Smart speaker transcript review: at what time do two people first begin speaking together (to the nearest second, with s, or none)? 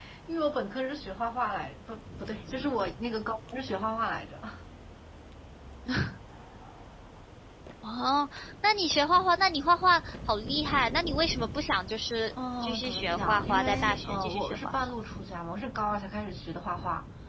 13 s